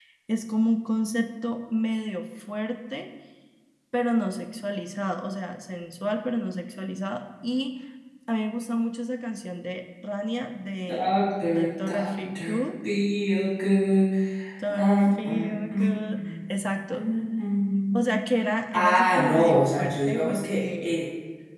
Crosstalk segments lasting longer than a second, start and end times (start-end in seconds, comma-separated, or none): 10.9-12.6, 14.7-16.3, 18.7-20.9